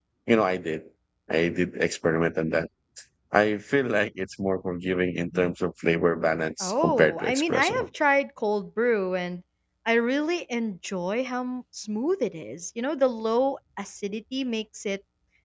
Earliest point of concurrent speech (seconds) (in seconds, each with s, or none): 6.6 s